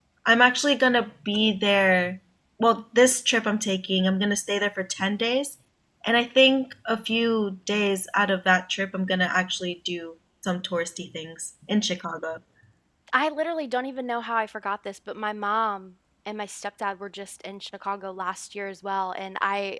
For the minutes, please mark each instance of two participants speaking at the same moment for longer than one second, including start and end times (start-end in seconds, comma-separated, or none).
none